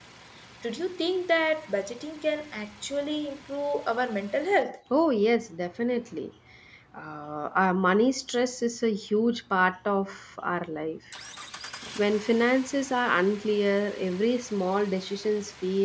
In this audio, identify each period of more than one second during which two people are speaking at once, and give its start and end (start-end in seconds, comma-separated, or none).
none